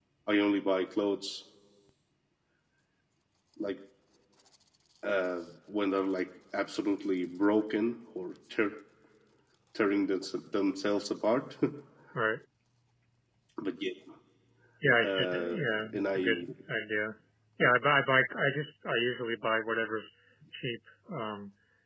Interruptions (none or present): present